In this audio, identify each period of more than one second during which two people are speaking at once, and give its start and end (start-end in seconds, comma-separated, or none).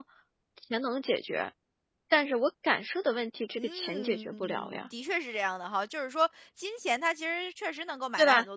3.5-4.9